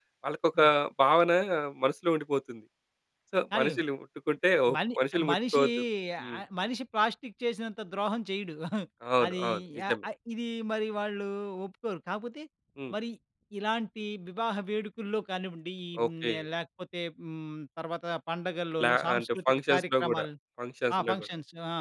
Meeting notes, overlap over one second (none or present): present